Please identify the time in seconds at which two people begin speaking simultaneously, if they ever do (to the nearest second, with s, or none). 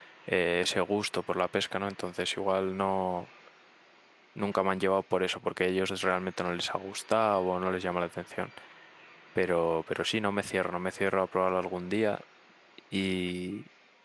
none